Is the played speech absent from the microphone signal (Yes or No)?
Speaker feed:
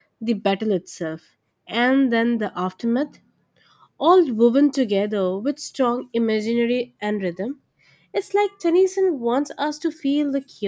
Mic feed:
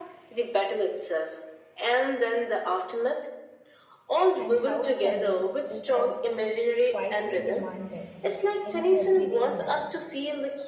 No